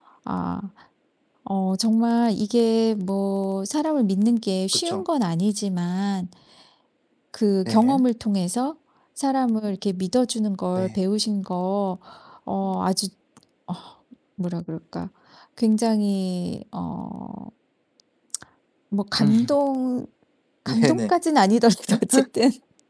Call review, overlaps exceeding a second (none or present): none